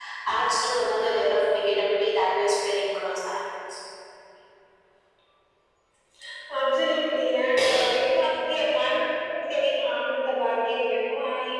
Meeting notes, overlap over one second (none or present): none